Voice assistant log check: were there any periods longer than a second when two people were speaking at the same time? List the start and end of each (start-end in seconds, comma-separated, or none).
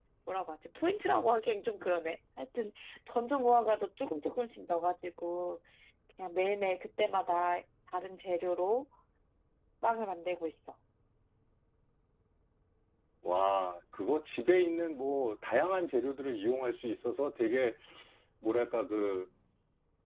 none